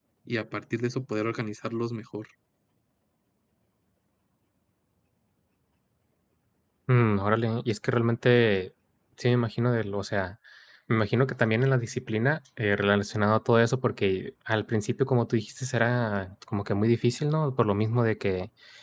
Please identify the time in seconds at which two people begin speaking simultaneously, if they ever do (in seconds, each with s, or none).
none